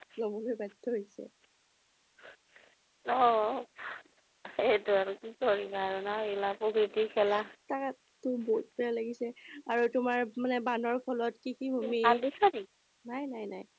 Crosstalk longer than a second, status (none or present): none